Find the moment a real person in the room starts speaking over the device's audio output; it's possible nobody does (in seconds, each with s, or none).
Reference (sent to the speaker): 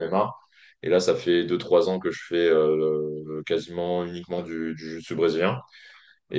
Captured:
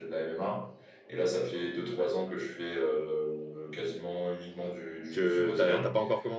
5.1 s